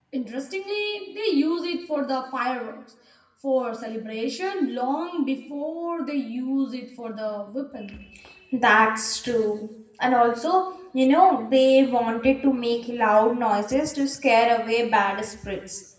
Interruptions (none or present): none